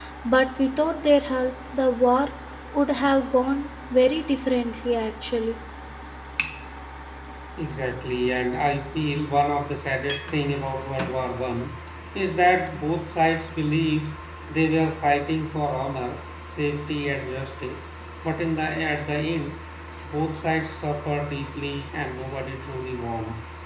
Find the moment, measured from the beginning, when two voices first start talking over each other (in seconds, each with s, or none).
none